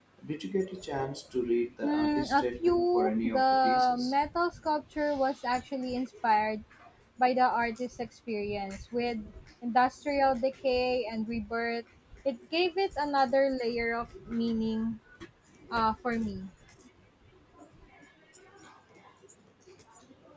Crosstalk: present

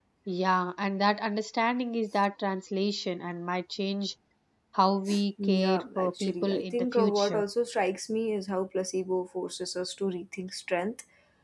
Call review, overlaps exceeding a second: present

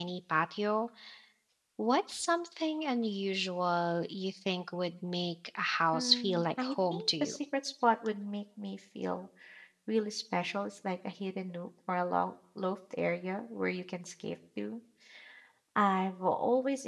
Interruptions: present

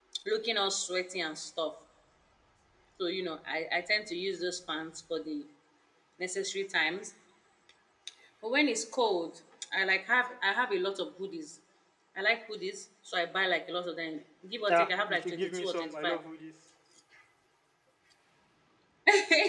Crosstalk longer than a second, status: present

